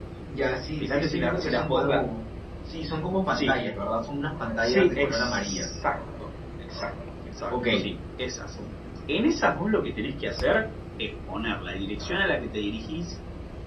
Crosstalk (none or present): present